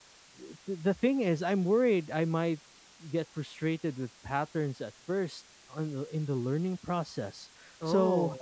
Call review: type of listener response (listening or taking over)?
listening